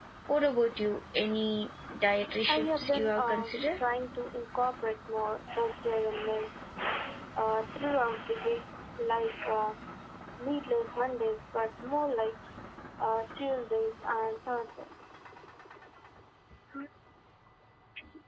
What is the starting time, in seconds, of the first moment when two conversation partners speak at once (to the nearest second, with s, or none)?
2 s